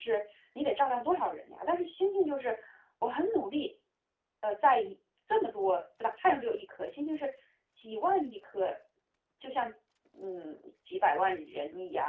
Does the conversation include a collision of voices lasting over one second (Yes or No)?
No